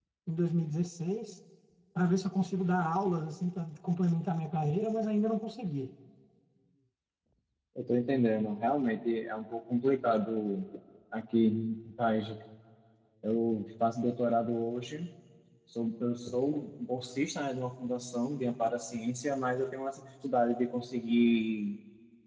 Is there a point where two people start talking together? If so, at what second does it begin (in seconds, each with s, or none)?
none